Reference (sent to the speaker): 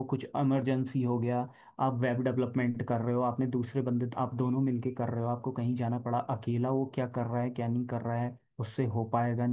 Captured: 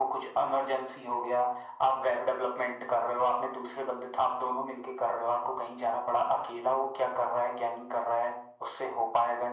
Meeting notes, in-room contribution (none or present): none